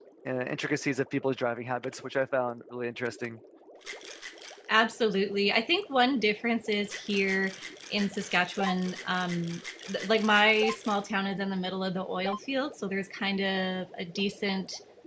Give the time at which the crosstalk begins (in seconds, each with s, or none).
none